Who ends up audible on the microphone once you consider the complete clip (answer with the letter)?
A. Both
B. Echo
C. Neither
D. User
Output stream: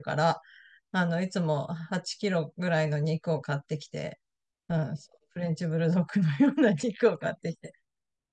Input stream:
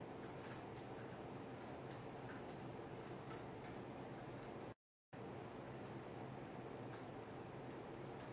C